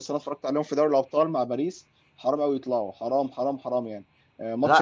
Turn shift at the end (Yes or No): No